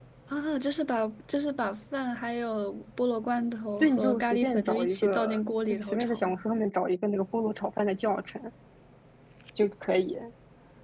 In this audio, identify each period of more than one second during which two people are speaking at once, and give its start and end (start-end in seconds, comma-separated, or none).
3.8-6.4